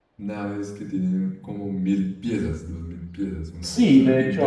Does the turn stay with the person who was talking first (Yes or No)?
No